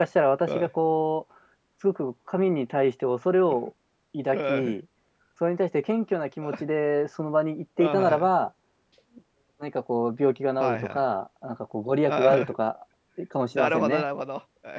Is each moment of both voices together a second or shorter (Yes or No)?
Yes